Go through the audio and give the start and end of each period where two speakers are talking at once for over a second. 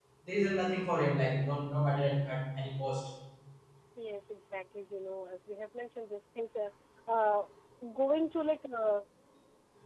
none

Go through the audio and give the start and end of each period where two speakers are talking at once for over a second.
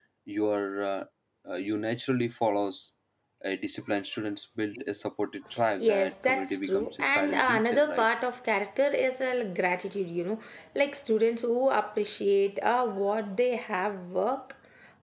5.8-8.1

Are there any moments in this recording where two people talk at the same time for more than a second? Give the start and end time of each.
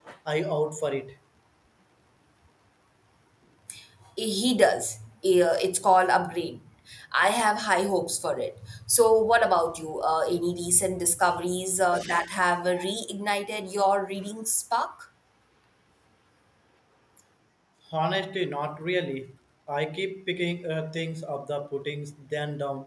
none

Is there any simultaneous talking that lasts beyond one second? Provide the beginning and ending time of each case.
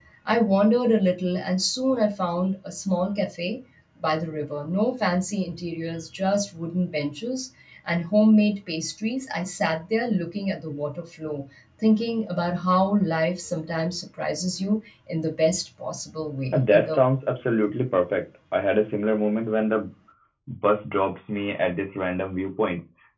none

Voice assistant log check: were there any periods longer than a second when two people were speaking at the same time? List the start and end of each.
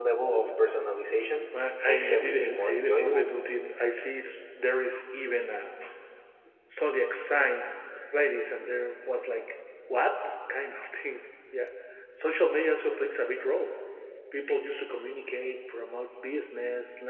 1.8-3.3

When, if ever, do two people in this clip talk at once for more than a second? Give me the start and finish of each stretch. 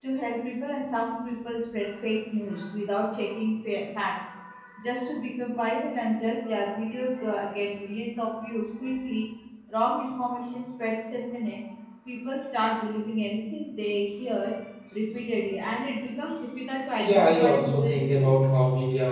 17.0-18.4

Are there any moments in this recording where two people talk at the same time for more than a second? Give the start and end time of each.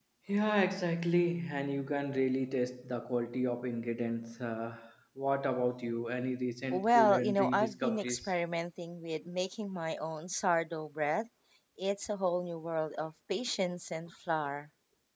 6.7-8.3

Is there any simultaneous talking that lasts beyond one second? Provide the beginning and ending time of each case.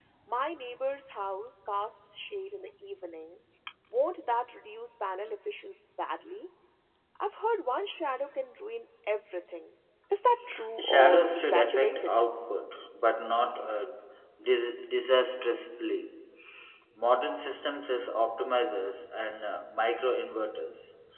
10.8-12.2

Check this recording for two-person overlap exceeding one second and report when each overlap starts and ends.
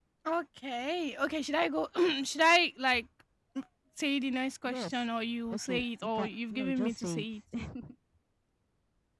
5.5-7.2

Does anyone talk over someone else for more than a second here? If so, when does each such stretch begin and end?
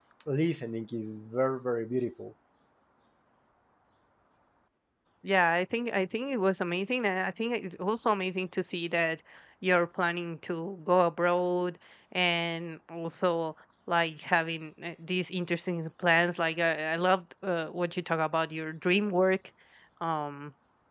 none

